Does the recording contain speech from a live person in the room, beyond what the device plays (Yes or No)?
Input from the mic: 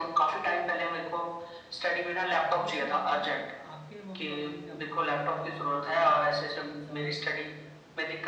Yes